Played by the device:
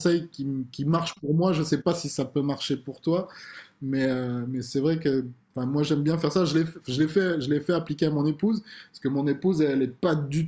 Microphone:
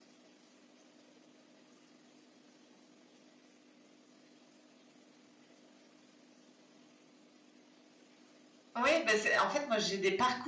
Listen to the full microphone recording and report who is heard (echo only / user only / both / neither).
user only